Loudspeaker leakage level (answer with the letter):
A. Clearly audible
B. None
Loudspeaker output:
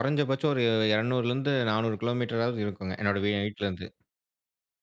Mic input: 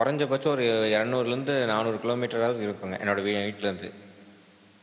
A